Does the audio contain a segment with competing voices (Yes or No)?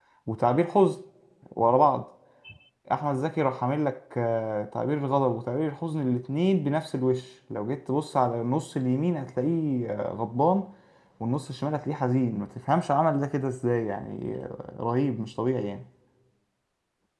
No